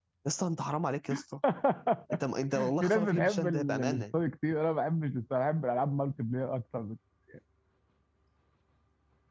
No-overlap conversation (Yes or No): No